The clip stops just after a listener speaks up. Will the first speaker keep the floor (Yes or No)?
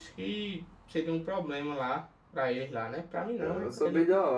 No